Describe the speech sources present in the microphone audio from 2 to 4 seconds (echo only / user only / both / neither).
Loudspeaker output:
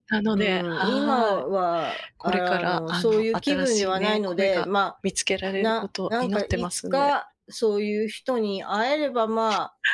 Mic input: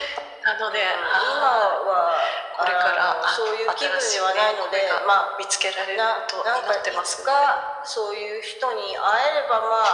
echo only